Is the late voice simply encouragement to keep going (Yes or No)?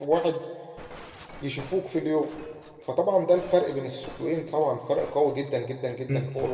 No